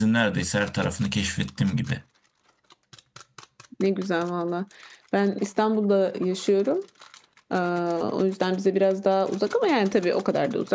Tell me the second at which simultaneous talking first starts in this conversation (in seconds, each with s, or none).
none